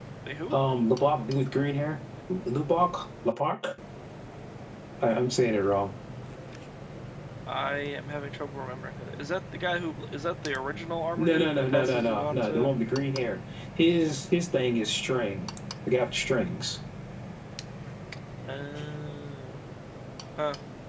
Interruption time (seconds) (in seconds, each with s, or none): 11.2 s